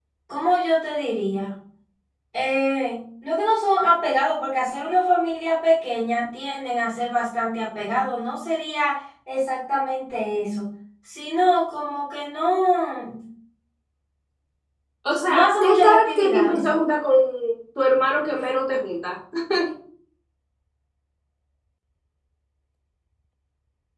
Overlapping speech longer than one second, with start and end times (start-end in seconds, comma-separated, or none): 15.3-16.6